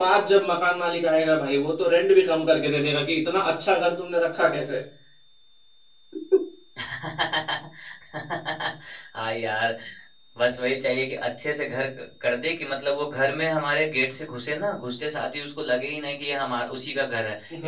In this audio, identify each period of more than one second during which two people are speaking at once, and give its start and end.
none

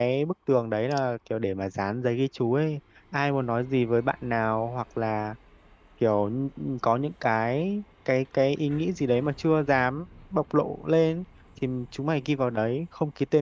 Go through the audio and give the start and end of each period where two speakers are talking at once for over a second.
none

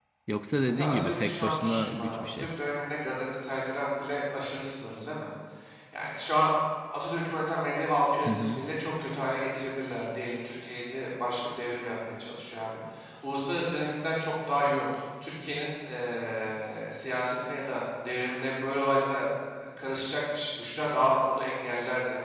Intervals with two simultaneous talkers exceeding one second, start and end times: 0.7-2.5

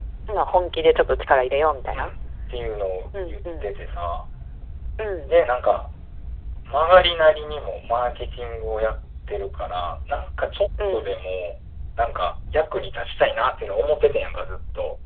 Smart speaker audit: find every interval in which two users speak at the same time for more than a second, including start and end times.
none

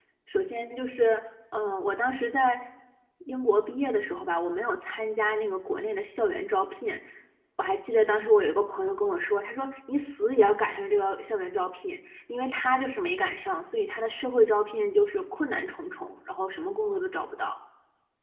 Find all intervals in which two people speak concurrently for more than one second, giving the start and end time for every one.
none

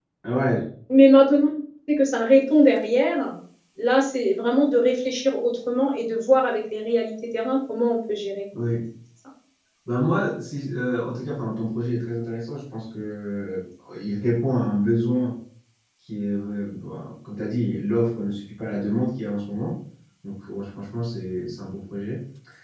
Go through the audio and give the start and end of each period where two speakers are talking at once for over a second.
none

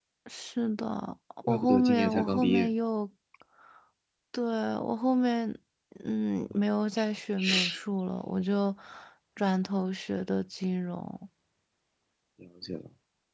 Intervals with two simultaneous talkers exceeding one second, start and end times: 1.5-2.7

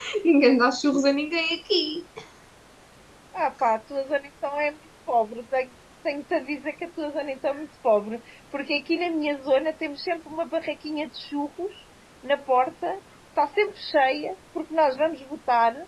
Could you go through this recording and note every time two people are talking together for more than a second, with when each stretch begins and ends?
none

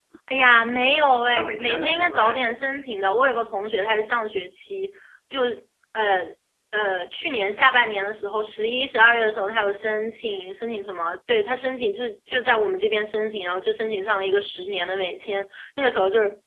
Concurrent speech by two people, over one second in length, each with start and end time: 1.3-2.8

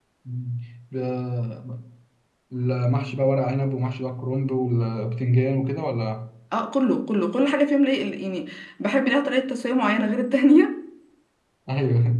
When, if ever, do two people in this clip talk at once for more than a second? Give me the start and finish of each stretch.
none

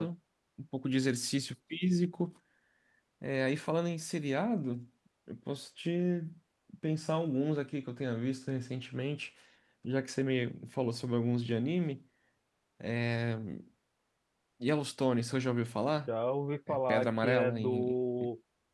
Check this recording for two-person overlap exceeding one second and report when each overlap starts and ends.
16.7-17.9

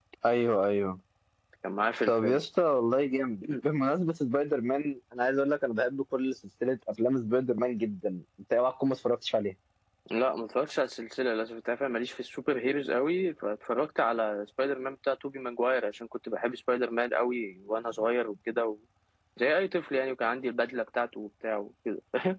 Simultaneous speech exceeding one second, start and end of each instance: none

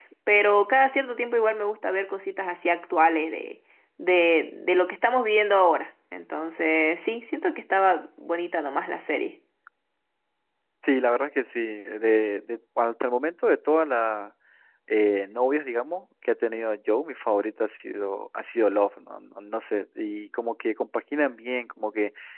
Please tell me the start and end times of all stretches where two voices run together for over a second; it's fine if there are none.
none

